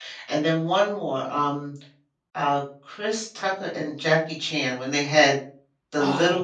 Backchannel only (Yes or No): Yes